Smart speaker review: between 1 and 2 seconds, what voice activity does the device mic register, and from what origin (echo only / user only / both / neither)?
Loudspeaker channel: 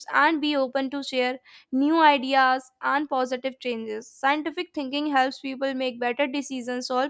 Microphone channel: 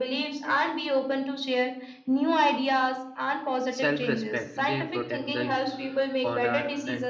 echo only